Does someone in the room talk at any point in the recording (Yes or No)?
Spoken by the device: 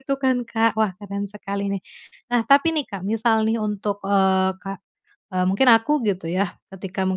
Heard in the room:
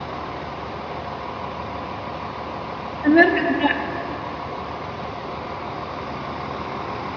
Yes